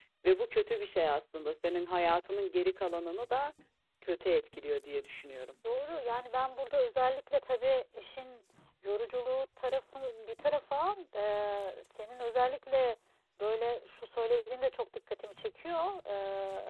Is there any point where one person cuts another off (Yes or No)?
No